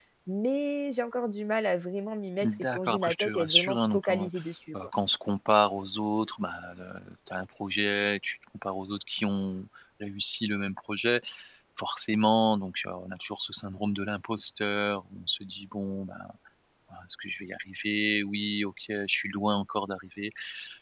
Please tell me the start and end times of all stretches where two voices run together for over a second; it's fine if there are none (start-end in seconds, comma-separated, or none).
2.4-4.3